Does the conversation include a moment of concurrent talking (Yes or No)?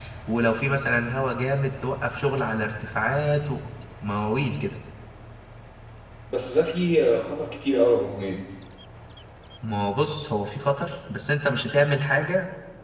No